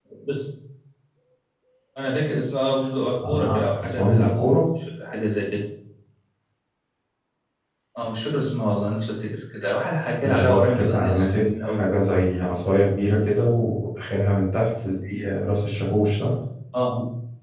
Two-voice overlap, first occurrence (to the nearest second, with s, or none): 3 s